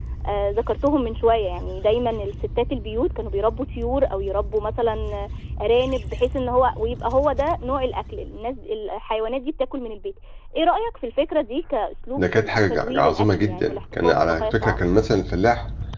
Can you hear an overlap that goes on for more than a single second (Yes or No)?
Yes